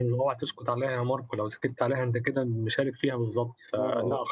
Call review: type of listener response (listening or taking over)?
listening